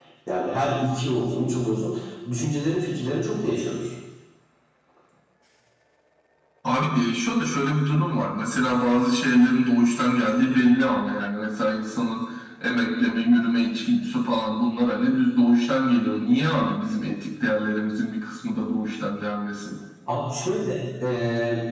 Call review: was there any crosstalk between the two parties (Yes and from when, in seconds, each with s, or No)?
No